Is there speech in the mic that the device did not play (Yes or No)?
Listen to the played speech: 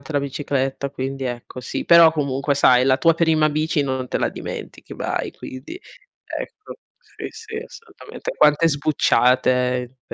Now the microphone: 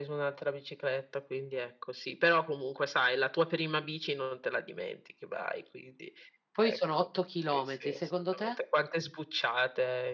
Yes